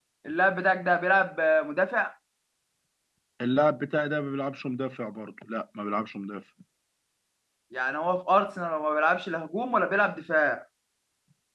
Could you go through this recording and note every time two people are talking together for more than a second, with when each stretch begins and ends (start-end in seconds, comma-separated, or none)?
none